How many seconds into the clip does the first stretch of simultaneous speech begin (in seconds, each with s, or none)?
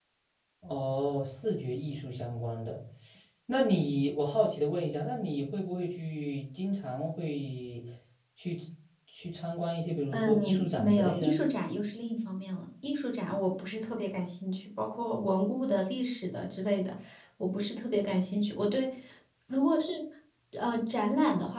10.1 s